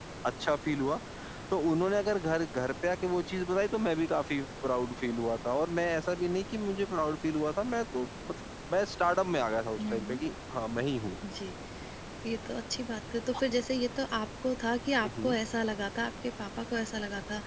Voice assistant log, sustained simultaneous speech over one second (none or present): none